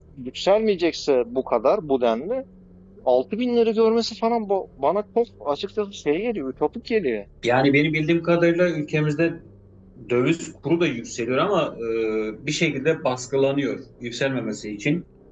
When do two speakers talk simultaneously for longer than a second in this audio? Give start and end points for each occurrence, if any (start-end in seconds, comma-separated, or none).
none